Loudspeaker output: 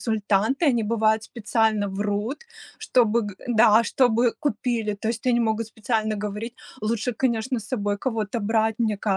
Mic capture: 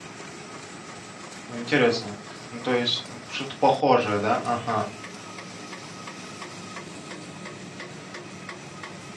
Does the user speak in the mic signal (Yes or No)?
Yes